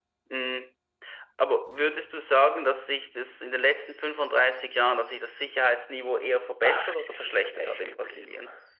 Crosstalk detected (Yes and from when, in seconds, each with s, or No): Yes, from 6.6 s